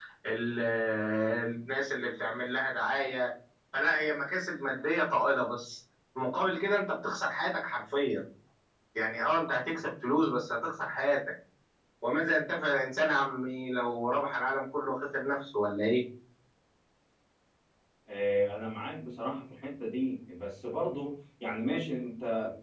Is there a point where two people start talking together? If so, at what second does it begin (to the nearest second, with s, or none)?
none